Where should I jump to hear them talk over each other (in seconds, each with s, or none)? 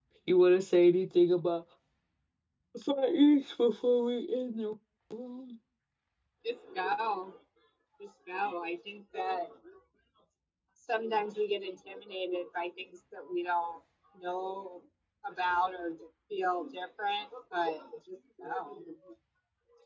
none